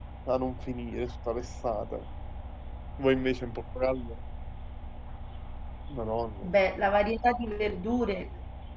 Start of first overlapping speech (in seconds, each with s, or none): none